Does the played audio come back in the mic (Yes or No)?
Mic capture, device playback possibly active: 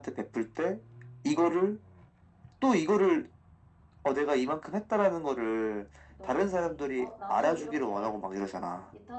Yes